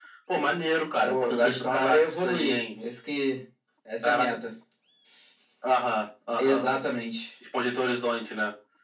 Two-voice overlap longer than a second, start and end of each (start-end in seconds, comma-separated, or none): 1.0-2.7